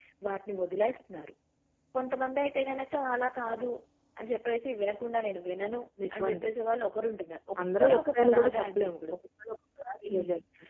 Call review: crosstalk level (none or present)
present